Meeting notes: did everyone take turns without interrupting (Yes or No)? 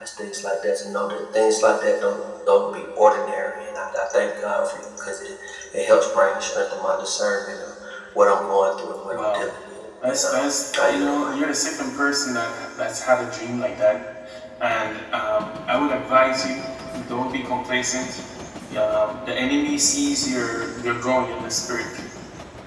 No